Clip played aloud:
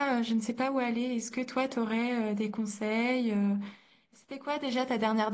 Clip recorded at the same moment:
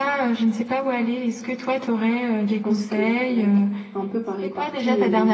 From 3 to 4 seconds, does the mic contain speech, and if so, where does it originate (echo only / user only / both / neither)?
both